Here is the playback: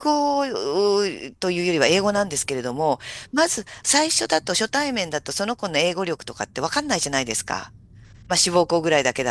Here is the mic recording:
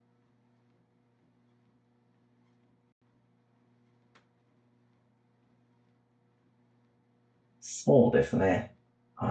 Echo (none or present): none